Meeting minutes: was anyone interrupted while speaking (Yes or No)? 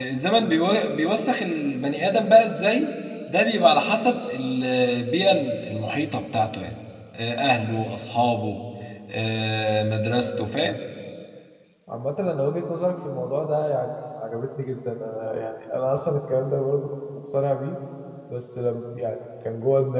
No